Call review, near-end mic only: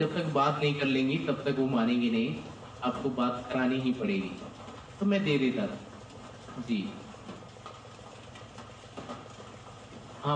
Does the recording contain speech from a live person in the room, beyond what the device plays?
No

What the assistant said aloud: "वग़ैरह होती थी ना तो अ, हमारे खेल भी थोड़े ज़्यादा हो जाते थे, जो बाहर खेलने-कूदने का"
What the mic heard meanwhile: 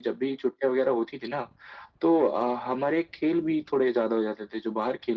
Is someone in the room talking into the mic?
No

